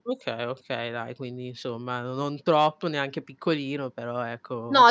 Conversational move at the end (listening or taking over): taking over